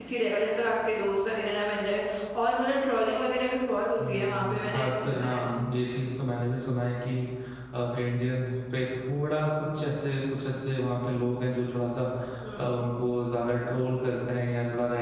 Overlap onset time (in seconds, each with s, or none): 4.0 s